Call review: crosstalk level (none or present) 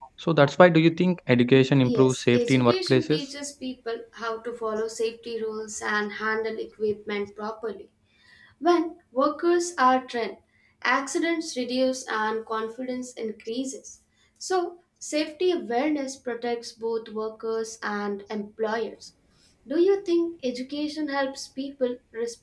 present